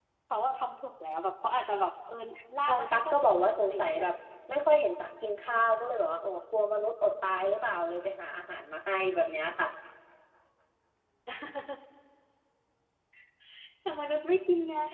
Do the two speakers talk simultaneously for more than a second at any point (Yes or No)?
Yes